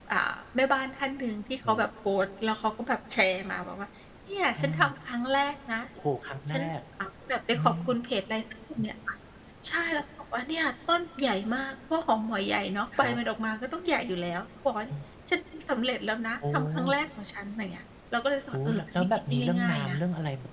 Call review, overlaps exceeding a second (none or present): present